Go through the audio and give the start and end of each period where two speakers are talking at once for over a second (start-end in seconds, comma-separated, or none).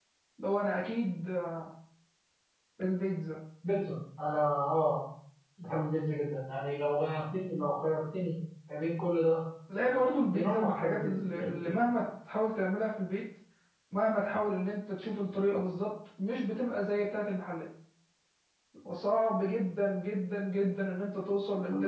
9.8-11.8